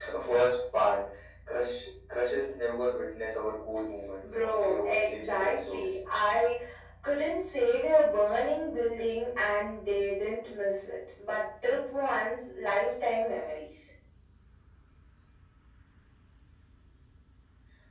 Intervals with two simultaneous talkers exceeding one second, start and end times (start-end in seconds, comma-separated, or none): 4.4-5.8